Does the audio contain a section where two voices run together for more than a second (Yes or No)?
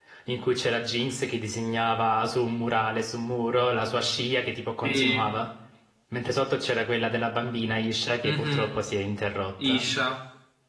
No